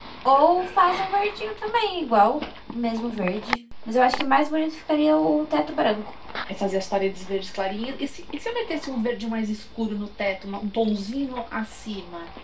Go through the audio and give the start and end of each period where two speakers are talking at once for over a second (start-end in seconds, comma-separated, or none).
none